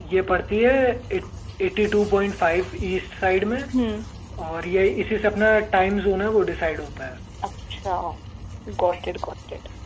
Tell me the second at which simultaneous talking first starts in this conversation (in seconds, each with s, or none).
none